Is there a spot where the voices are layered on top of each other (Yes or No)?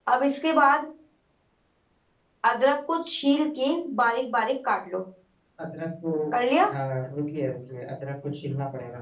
No